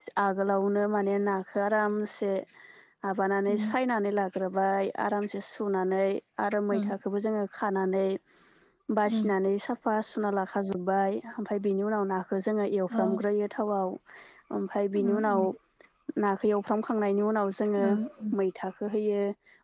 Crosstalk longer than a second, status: none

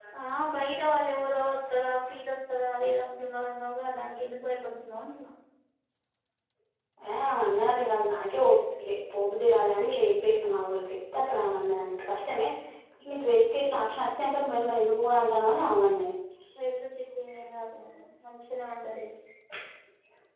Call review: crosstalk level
none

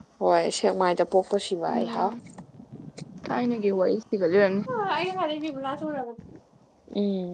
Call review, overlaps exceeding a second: none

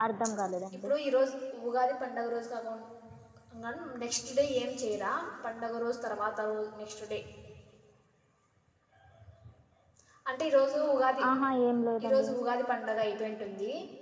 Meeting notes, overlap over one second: none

